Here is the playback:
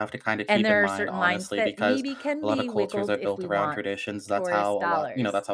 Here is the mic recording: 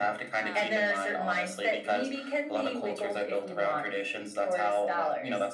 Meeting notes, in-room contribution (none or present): present